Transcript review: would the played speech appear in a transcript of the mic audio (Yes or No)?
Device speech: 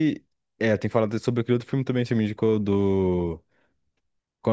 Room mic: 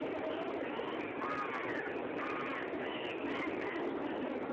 No